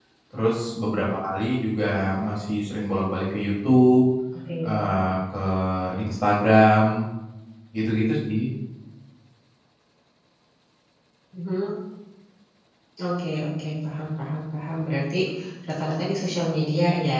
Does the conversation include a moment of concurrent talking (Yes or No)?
No